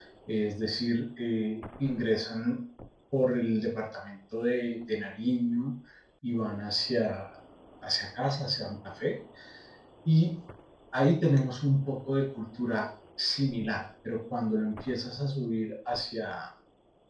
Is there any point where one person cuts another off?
No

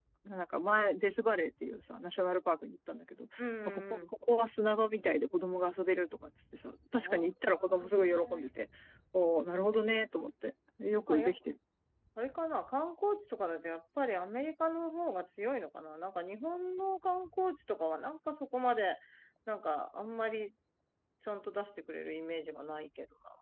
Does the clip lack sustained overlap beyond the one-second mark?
No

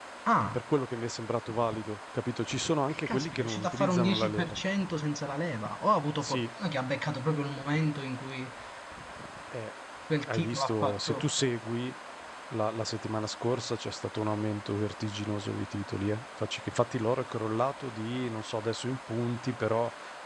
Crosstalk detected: Yes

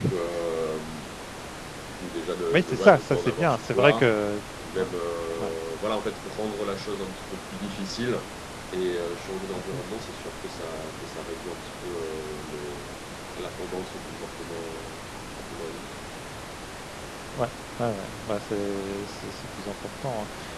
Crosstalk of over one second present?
Yes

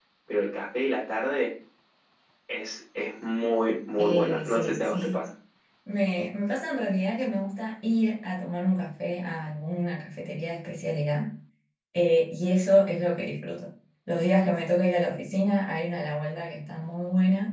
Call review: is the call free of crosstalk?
No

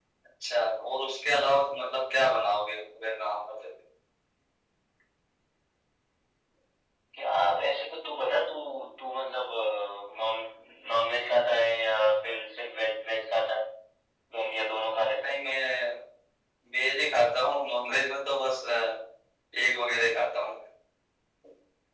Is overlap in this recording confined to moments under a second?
Yes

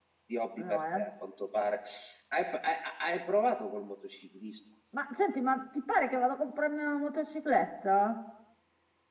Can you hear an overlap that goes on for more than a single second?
No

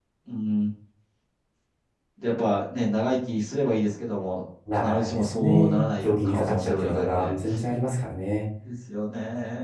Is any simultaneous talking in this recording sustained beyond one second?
Yes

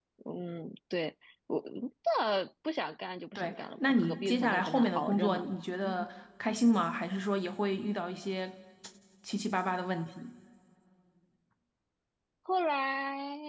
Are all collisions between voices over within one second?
No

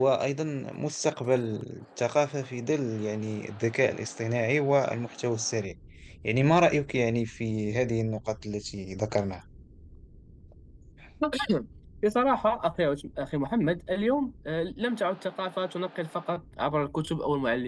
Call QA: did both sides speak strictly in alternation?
Yes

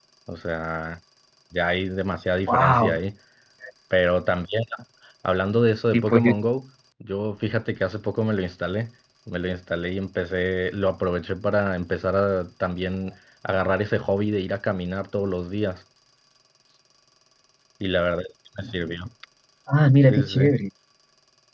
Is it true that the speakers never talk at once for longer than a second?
Yes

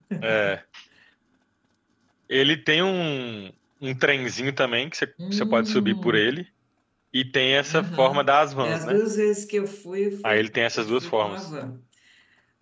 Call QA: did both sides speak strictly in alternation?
No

